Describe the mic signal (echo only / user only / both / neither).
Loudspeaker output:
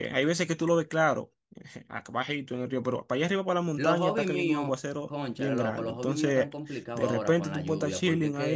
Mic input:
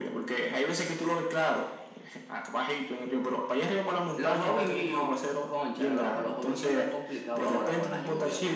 echo only